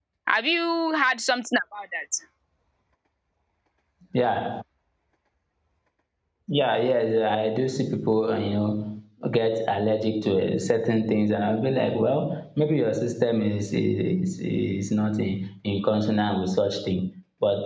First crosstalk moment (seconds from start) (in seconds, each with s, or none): none